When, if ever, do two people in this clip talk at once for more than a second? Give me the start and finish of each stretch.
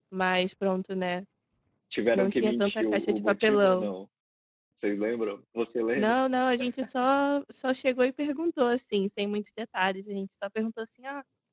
2.1-3.9

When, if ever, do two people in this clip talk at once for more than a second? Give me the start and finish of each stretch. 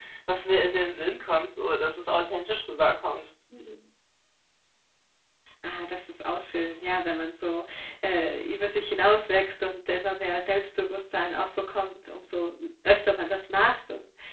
none

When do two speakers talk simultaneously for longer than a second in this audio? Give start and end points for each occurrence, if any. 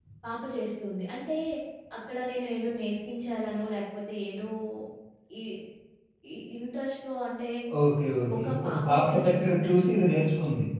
8.3-10.1

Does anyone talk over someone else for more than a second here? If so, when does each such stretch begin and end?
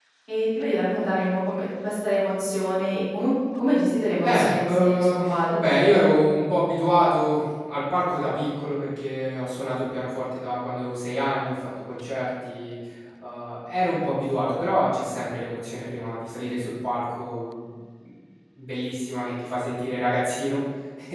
4.2-5.8

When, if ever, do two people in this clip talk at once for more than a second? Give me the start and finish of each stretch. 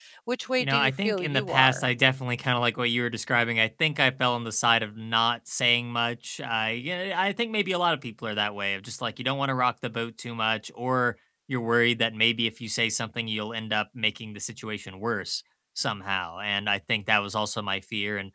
0.6-1.8

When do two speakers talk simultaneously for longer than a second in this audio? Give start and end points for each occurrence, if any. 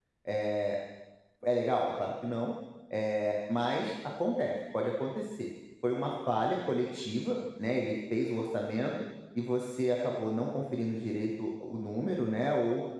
none

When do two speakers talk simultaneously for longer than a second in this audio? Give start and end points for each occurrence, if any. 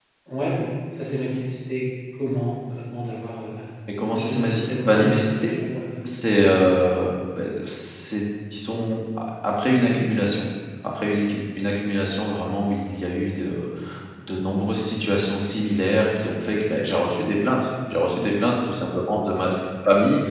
4.2-5.5

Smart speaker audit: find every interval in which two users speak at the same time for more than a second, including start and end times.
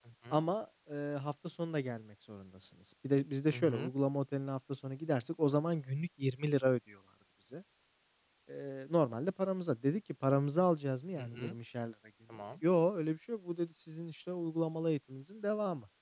none

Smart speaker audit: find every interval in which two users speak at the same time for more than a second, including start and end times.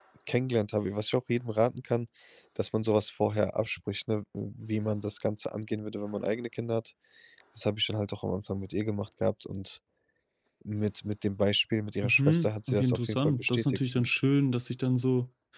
12.0-14.2

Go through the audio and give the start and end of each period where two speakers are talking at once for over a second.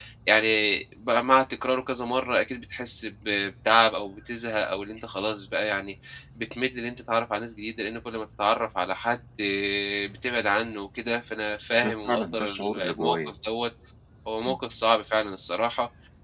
11.8-13.3

